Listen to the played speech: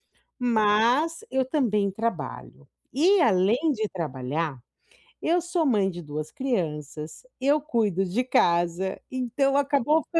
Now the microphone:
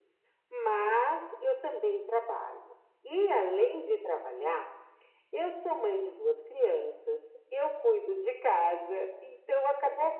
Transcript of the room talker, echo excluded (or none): none